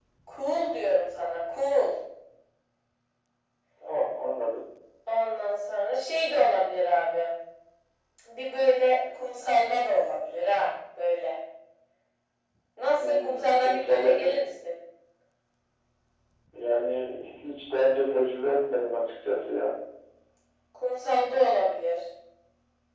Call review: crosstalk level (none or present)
present